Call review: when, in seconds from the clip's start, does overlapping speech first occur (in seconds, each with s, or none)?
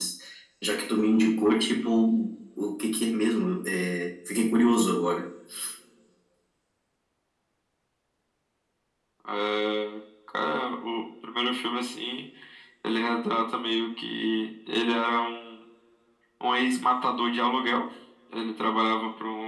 none